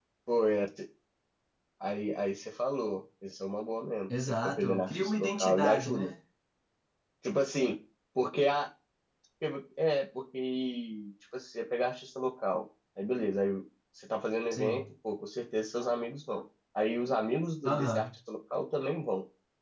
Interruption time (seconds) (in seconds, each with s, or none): 4.2 s